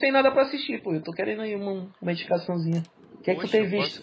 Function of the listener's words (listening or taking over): taking over